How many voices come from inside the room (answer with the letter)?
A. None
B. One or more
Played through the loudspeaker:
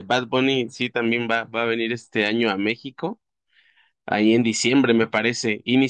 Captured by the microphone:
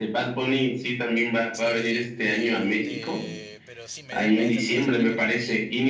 B